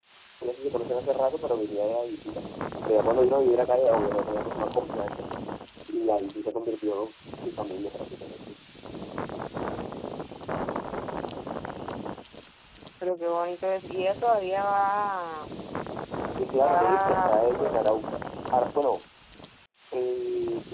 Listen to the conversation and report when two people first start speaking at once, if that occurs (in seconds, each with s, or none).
16.5 s